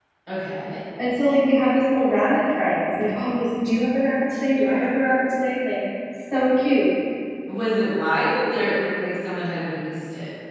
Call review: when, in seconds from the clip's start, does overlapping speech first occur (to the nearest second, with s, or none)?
none